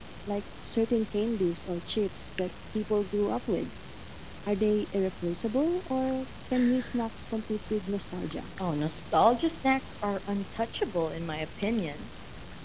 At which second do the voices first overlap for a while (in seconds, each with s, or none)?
none